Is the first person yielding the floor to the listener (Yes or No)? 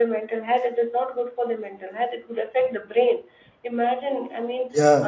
No